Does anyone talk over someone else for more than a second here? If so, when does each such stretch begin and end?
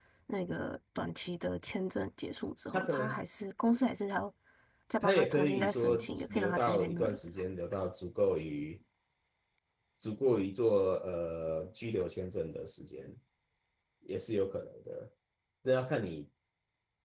5.0-7.2

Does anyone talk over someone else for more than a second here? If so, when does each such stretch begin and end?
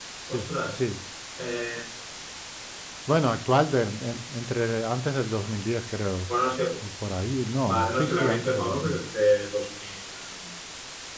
7.6-9.0

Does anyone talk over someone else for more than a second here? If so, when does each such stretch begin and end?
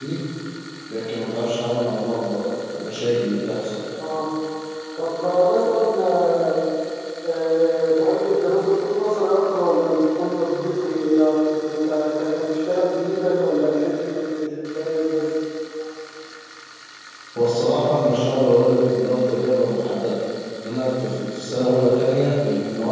none

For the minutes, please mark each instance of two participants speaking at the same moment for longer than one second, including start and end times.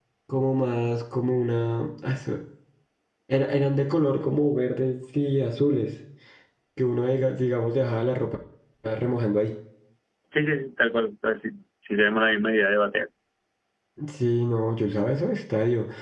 none

